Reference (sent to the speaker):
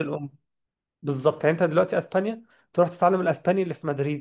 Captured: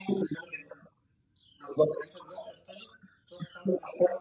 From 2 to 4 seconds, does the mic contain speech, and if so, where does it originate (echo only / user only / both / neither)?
echo only